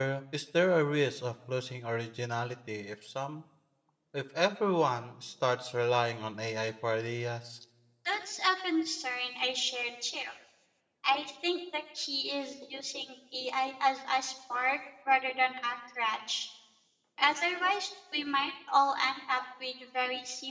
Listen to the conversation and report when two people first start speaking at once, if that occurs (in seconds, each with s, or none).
none